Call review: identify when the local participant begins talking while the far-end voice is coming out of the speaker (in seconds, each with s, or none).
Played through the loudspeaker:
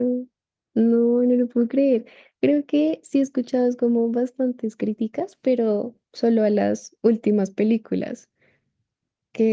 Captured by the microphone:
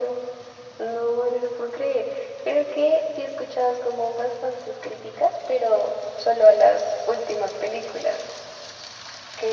none